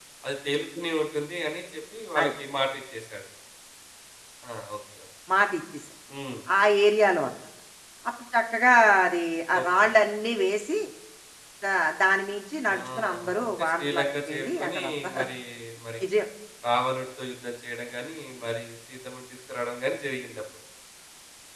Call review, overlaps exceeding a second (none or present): present